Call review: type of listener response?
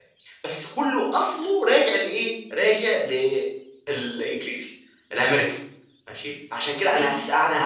listening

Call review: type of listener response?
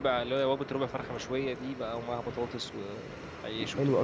taking over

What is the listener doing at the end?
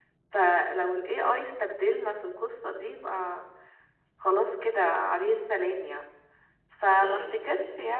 listening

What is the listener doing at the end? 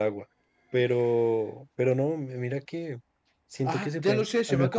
taking over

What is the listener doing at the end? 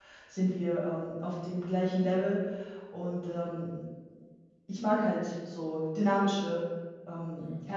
taking over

